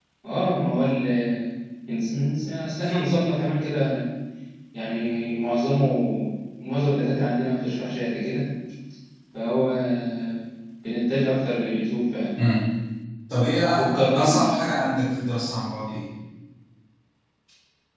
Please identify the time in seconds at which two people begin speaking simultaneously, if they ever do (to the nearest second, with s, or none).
14 s